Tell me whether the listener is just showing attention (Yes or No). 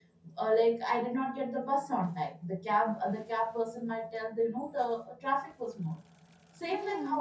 Yes